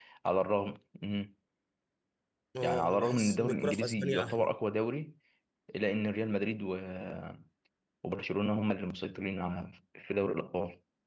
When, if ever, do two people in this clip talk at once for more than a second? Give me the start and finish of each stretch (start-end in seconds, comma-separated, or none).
2.6-4.5